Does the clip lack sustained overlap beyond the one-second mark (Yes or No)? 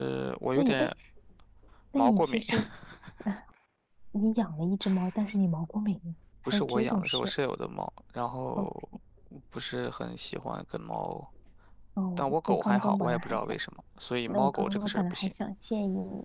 No